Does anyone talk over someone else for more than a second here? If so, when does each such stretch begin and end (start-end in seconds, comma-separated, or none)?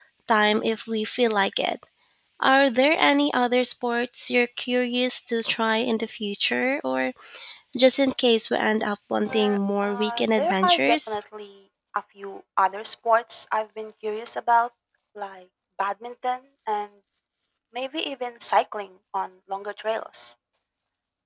9.3-11.2